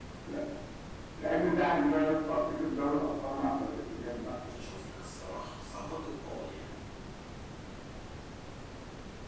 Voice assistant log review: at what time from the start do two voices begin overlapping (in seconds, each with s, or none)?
none